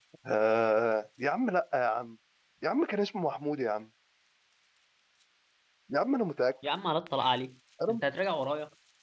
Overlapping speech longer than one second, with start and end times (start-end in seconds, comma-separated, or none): none